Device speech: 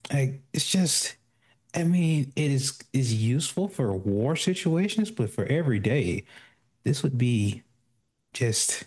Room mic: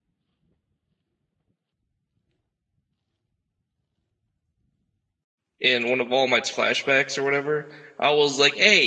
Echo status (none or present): none